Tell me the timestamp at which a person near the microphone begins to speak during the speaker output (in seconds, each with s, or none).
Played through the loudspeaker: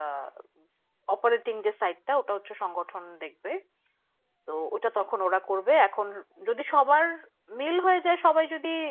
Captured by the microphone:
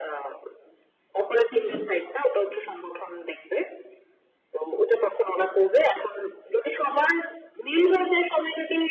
1.6 s